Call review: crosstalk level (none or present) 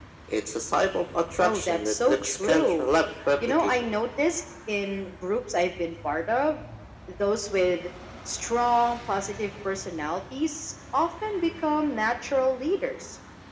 present